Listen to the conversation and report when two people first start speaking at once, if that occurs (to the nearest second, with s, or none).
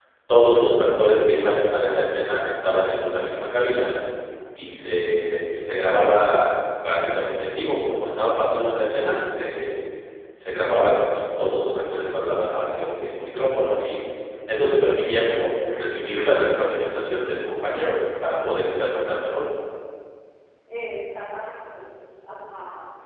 none